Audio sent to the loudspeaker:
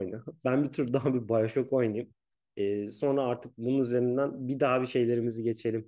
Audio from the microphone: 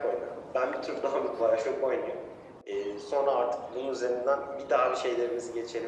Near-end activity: none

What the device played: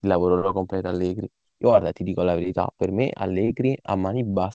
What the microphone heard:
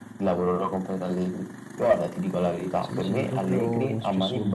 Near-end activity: present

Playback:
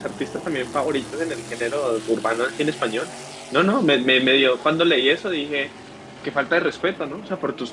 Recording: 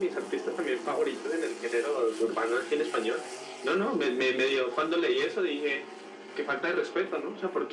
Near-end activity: none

